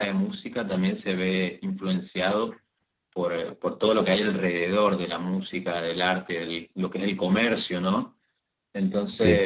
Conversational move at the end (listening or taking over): listening